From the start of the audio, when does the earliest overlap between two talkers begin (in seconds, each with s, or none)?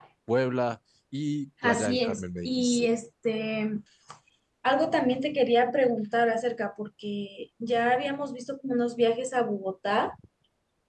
1.6 s